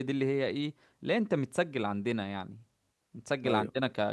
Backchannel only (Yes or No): Yes